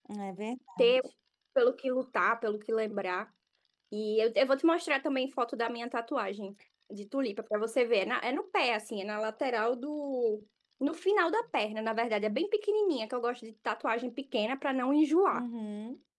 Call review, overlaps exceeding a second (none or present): none